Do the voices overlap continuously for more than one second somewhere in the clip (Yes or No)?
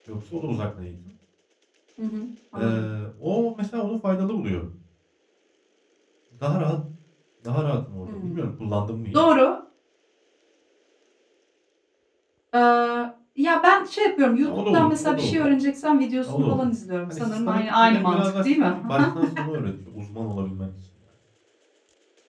Yes